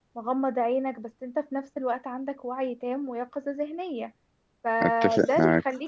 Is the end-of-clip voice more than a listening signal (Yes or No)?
No